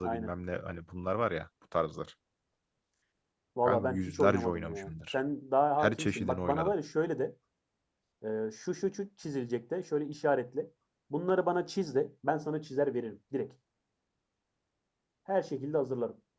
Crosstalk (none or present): present